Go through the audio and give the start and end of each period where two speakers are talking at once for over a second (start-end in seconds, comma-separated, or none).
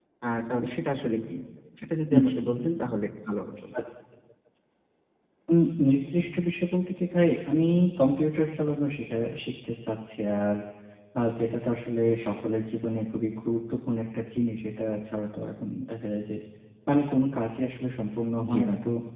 none